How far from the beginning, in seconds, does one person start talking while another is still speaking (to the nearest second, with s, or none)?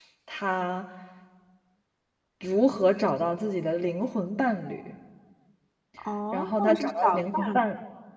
6 s